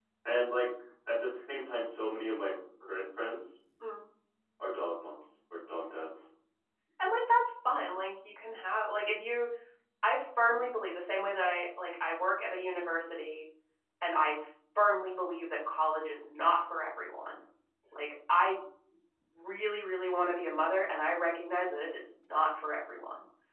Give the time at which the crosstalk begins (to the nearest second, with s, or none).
none